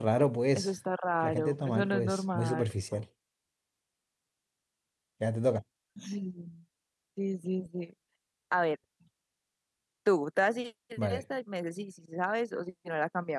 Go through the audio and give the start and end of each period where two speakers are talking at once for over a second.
1.2-2.7

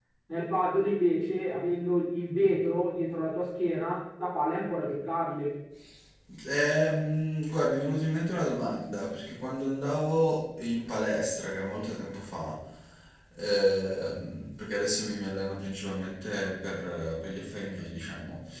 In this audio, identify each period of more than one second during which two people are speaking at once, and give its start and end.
none

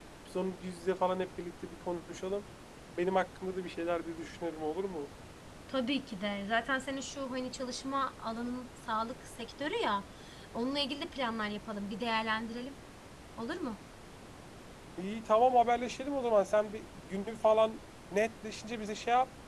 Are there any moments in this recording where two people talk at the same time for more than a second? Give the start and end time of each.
none

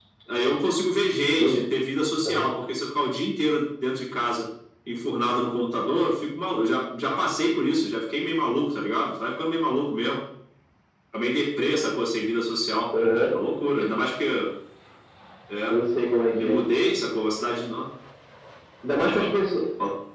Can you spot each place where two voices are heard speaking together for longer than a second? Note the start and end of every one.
none

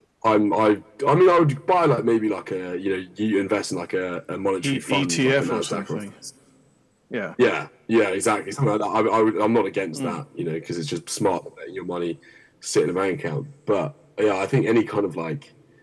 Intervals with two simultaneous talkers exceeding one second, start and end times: 4.7-6.0

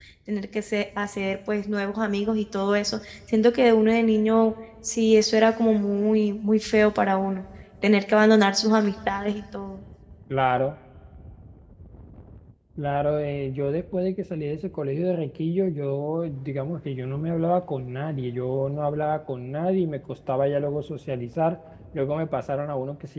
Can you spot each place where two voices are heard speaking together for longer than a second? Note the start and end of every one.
none

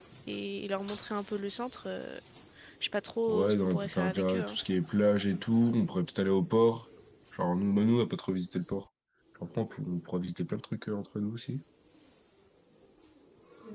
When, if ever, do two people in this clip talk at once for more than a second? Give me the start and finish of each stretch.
3.3-4.6

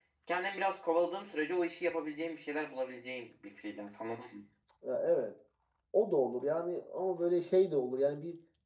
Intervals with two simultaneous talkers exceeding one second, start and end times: none

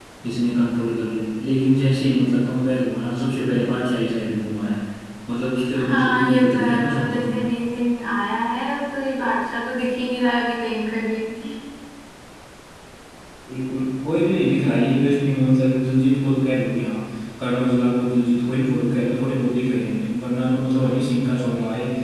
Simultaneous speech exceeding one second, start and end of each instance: 5.8-7.3

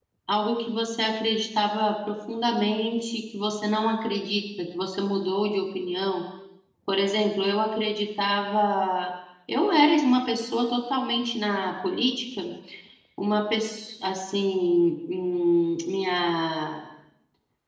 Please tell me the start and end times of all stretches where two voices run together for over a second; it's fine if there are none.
none

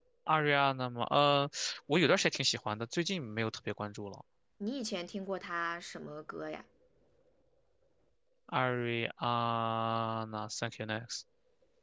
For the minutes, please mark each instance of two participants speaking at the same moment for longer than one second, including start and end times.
none

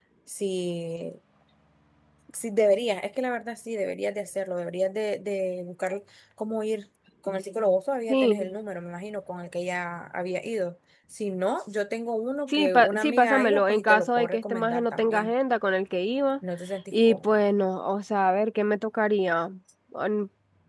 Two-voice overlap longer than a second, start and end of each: 12.5-15.3

